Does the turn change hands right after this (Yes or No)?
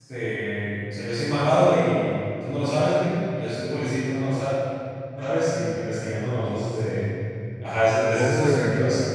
No